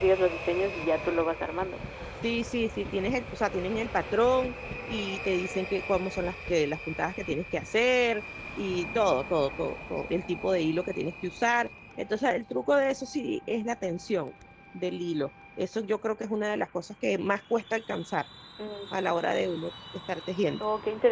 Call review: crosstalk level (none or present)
none